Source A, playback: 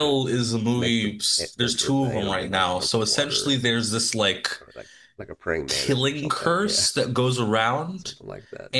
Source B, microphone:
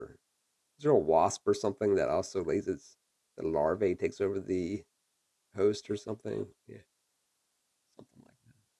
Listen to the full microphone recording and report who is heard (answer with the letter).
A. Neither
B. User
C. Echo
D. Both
B